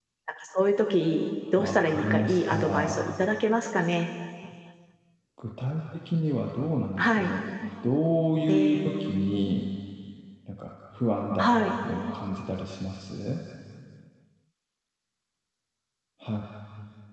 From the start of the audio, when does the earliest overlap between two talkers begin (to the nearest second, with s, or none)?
2 s